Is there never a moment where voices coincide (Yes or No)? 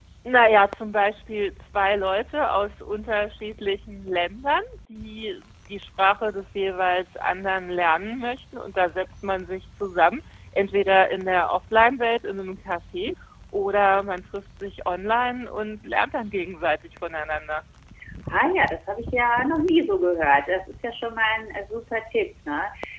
Yes